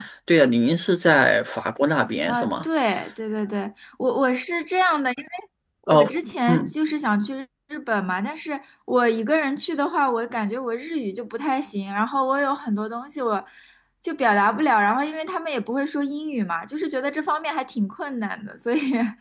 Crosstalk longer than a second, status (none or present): none